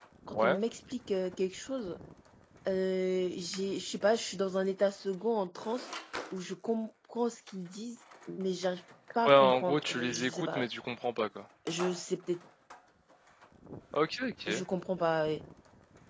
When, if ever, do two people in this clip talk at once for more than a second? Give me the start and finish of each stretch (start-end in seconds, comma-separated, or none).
9.3-10.6